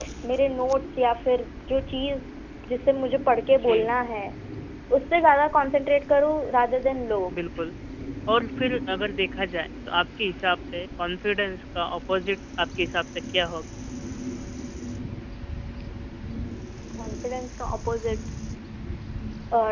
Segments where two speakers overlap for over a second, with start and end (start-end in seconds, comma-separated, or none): none